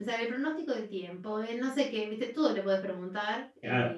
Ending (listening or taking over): taking over